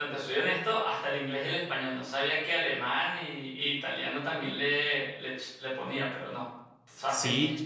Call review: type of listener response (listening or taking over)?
taking over